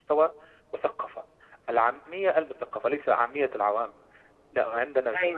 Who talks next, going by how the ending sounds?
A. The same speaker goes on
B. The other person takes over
A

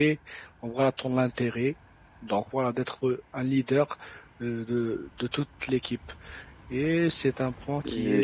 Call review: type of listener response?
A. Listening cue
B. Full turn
B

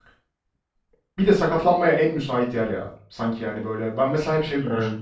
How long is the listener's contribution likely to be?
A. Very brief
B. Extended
A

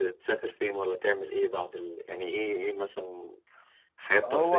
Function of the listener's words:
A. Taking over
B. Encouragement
A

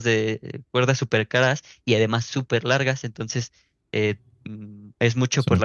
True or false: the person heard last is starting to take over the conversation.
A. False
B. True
A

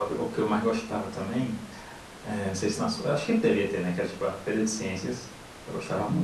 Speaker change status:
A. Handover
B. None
A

